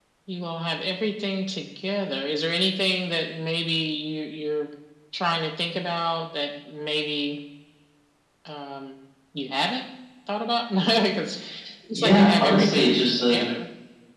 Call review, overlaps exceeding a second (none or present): present